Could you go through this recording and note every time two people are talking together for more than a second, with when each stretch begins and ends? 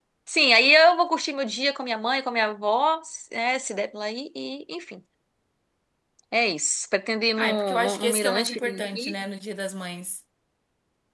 7.4-9.1

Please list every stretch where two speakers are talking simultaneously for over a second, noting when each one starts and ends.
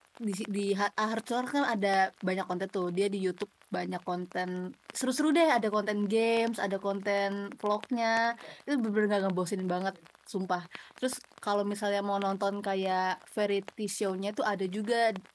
none

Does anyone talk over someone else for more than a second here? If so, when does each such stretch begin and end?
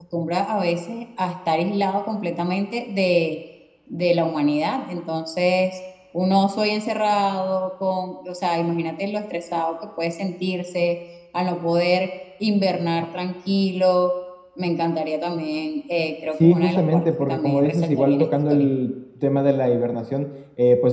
16.4-18.7

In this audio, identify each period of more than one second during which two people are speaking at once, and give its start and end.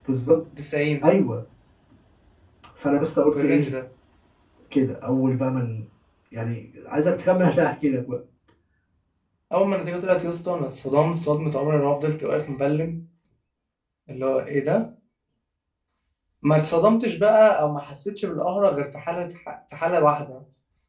none

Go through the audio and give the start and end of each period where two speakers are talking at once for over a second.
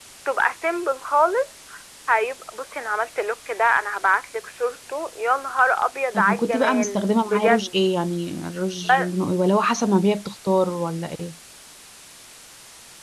6.1-7.8

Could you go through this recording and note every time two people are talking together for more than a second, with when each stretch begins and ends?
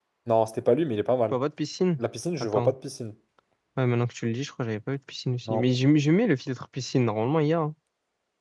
none

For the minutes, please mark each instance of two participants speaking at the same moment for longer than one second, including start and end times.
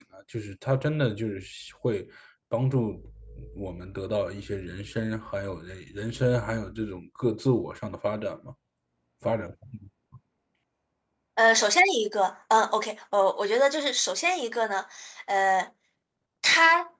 none

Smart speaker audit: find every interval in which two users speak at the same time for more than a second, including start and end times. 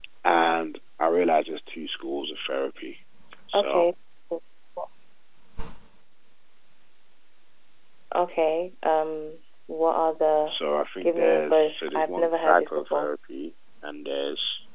11.0-13.1

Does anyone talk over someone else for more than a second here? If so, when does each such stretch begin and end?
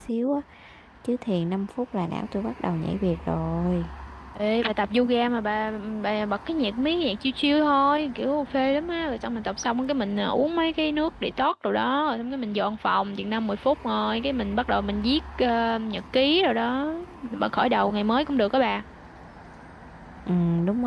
none

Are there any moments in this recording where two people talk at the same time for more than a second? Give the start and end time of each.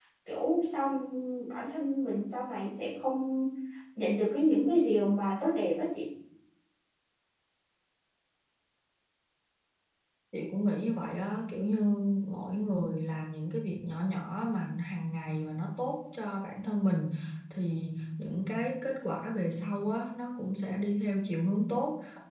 none

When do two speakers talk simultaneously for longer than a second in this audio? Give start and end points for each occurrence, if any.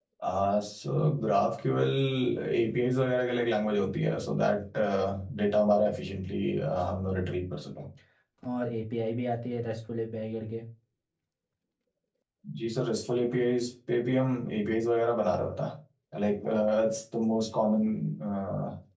none

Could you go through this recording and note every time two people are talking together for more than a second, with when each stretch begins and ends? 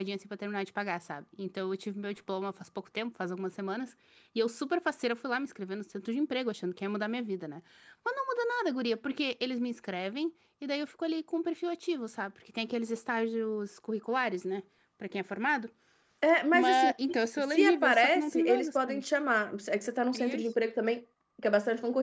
17.5-19.0

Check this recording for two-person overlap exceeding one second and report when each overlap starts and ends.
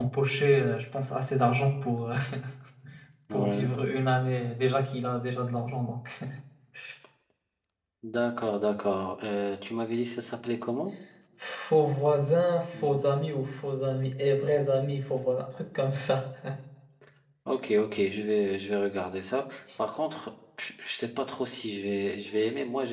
none

